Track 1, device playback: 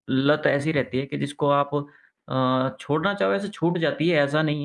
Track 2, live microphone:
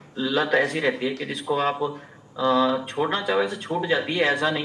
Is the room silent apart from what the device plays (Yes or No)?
Yes